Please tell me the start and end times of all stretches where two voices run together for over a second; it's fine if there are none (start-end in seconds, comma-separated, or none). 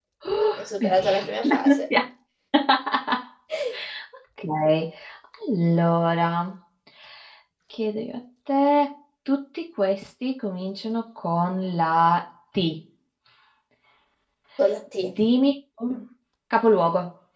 0.6-1.8